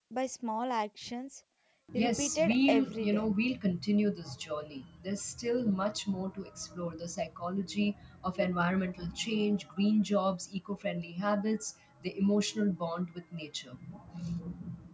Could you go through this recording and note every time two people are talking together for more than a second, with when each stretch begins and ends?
2.0-3.3

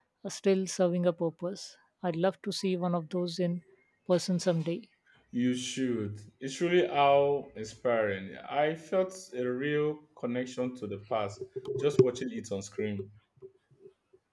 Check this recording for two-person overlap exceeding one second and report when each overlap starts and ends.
none

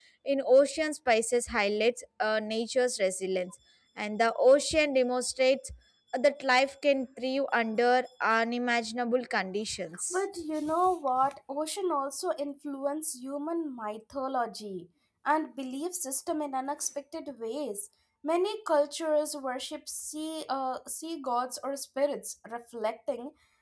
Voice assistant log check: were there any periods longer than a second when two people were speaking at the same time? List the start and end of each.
none

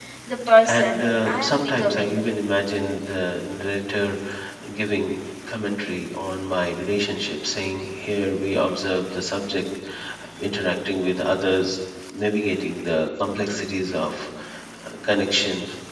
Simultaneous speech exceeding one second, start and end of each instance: 0.7-2.1

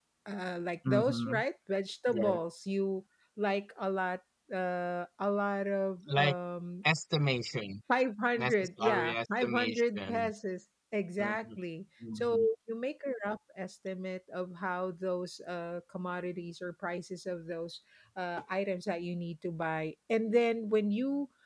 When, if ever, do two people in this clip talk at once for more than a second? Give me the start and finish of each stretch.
8.3-10.3

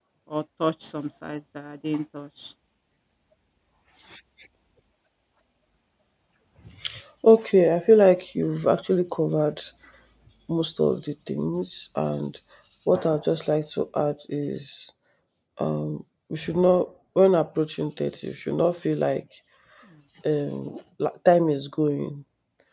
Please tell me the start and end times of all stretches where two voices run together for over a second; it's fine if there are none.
none

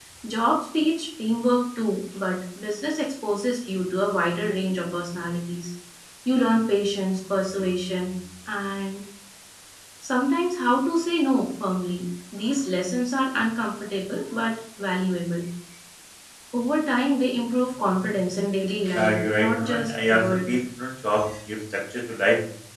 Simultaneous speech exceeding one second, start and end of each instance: 18.9-20.4

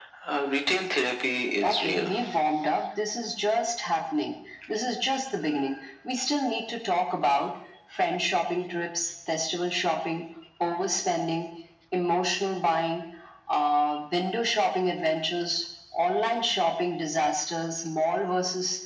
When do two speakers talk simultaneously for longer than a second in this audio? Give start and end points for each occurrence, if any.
none

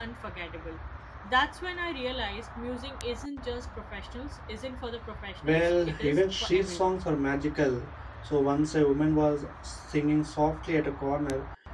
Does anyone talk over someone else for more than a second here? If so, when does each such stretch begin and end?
5.5-7.0

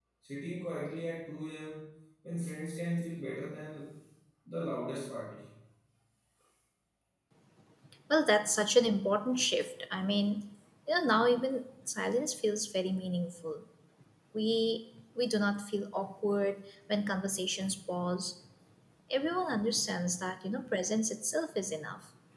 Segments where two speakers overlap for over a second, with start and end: none

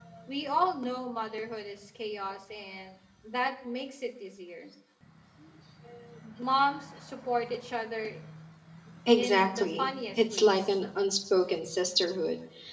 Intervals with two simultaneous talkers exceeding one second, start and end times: 9.1-10.5

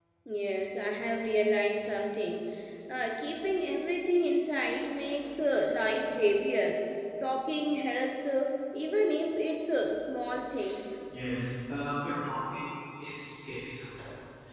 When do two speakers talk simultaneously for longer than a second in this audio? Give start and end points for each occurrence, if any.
none

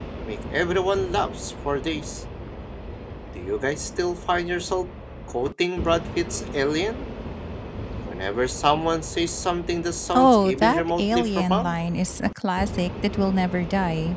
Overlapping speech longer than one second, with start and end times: 10.2-11.8

